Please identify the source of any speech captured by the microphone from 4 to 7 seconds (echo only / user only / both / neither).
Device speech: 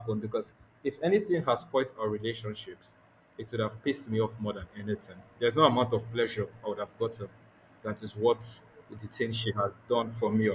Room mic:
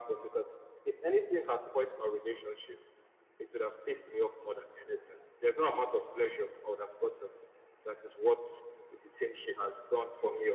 echo only